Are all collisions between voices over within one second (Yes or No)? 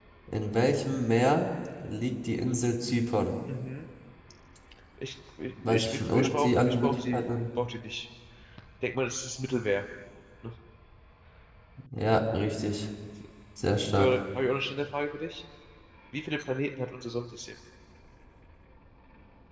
No